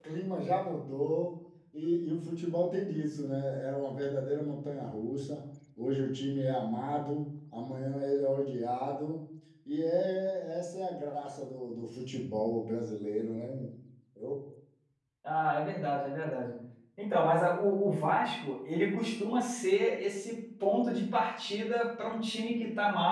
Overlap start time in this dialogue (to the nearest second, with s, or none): none